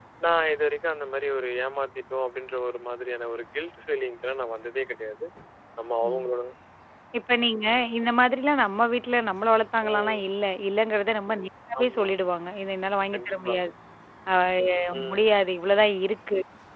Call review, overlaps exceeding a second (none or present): none